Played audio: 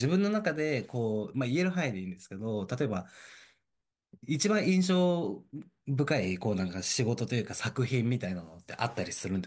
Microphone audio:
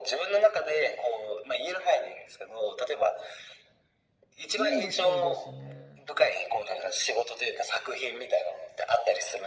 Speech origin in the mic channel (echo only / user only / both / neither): both